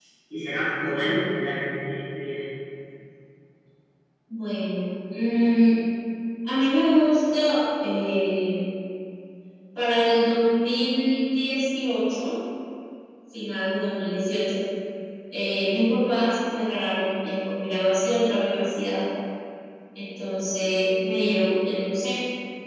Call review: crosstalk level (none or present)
none